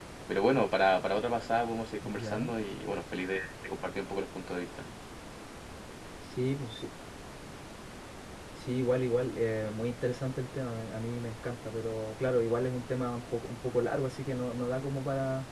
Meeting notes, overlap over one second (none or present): none